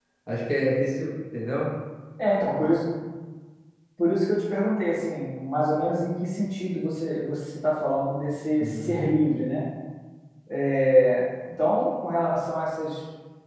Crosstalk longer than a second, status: none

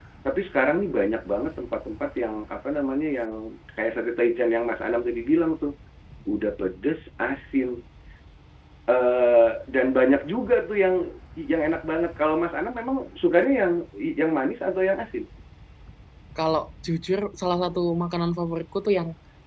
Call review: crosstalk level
none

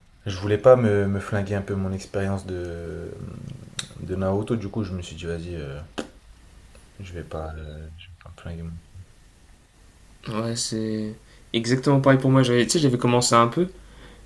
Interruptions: none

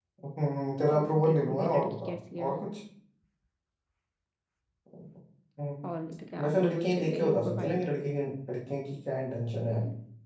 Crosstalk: present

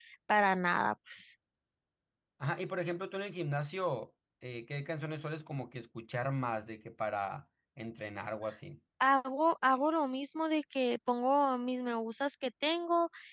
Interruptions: none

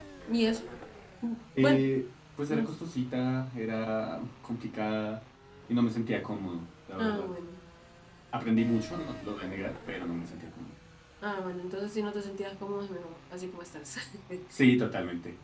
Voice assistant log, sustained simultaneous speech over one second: none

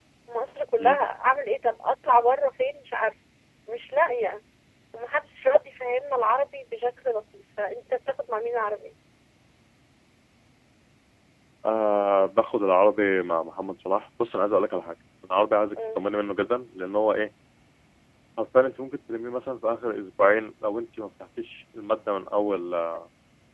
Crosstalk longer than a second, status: none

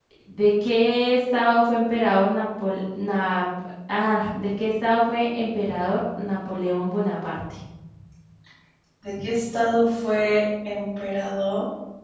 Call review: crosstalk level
none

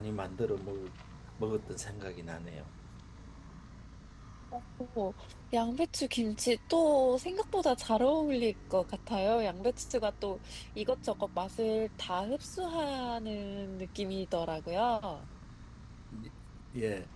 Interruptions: none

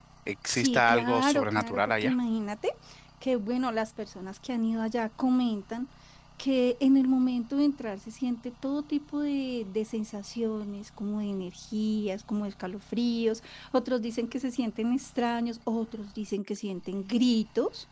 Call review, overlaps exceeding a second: present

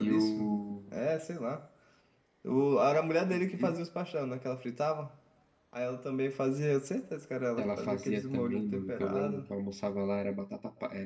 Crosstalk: present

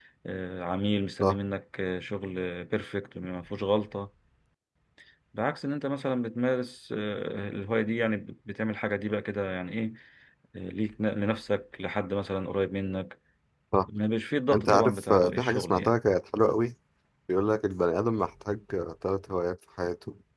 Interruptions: present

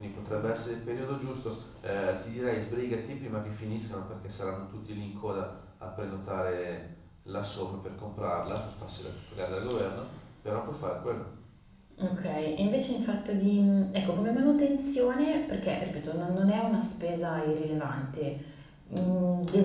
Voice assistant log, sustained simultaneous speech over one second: none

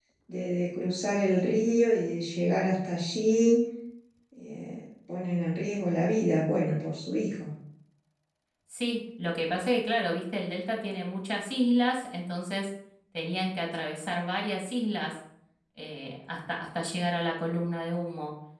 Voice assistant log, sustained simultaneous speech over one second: none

